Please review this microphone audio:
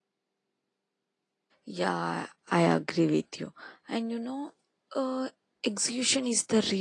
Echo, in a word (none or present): none